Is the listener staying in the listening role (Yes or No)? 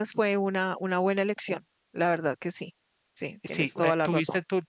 No